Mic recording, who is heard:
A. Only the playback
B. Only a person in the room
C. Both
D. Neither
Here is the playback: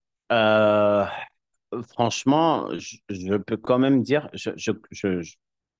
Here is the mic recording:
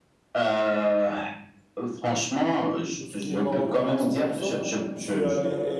C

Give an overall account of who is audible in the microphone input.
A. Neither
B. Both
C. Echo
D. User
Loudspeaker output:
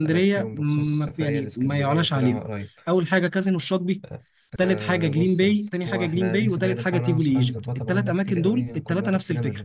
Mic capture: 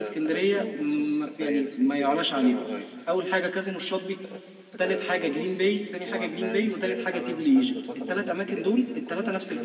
C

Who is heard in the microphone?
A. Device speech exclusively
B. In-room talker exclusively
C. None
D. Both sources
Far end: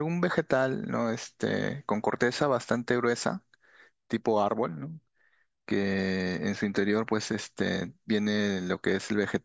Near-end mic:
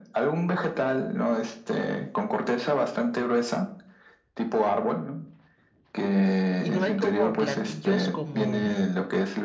D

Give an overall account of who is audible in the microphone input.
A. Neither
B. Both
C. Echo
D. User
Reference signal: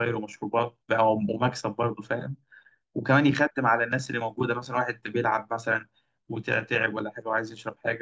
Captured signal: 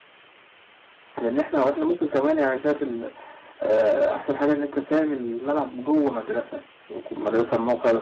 D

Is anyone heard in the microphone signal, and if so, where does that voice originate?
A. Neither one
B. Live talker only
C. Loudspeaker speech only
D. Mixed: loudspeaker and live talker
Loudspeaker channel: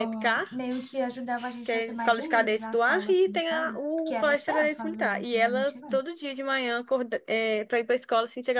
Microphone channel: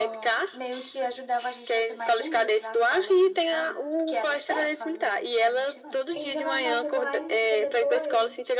D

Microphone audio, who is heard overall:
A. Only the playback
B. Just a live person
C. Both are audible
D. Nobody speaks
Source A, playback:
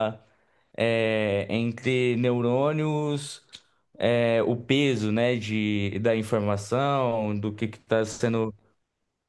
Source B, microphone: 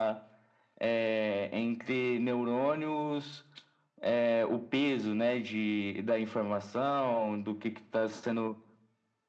A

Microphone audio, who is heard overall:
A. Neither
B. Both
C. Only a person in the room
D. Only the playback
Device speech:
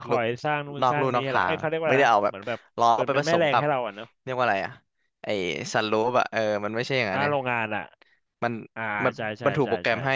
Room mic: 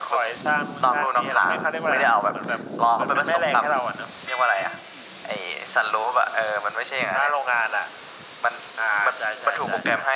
D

